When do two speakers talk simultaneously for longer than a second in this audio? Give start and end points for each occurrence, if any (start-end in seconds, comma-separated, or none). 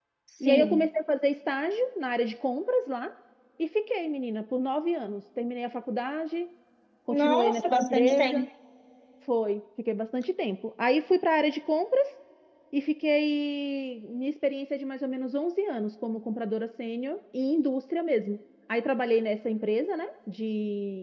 7.2-8.4